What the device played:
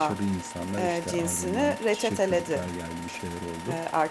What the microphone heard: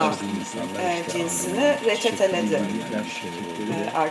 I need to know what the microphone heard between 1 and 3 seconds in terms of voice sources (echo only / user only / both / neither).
both